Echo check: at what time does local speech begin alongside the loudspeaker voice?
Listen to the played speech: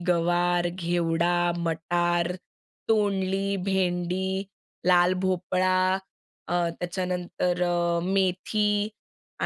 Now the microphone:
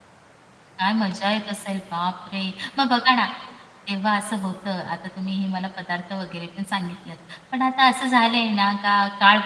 0.8 s

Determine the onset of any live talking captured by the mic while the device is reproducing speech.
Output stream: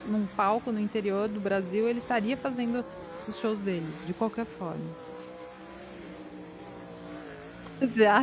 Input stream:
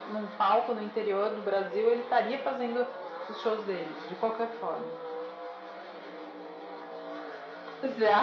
none

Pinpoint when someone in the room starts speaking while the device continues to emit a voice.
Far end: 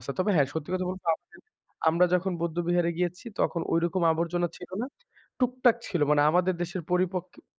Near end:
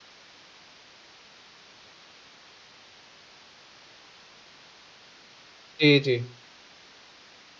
5.8 s

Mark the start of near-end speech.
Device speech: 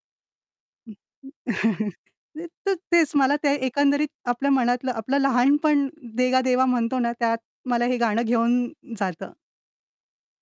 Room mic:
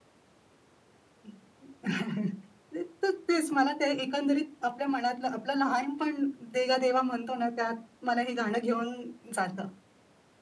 none

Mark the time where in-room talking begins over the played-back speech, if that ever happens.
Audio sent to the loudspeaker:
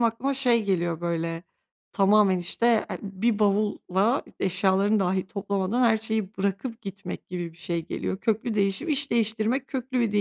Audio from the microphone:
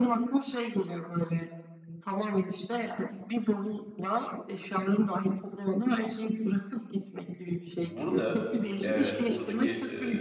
7.8 s

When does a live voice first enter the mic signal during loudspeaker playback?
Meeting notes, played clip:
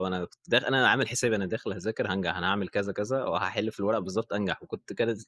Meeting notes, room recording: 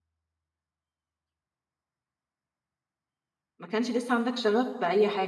3.6 s

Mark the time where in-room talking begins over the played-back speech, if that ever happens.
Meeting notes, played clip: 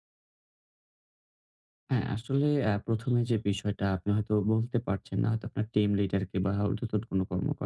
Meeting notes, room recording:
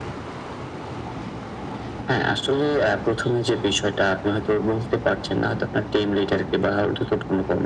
none

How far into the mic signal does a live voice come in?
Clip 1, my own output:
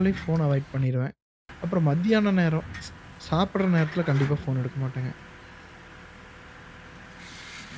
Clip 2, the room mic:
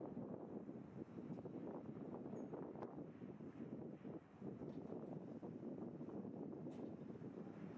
none

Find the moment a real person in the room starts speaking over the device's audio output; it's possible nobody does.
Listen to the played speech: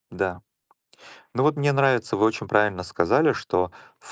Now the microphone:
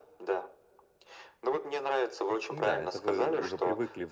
2.5 s

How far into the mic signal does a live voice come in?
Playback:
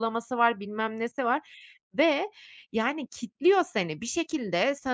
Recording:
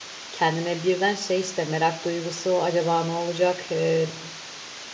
0.3 s

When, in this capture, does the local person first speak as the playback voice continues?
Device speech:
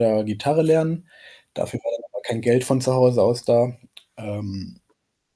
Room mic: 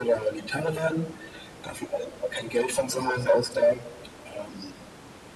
none

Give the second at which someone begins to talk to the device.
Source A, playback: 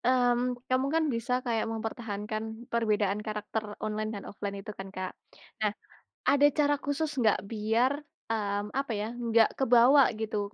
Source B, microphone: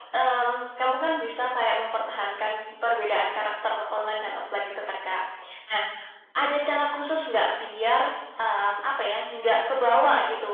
none

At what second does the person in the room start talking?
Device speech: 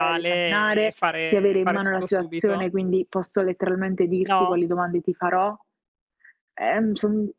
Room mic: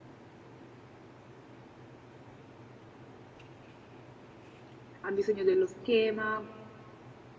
5.0 s

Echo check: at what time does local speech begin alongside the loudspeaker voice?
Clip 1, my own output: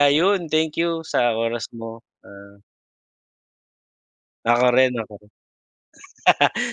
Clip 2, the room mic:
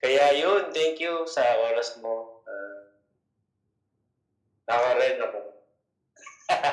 none

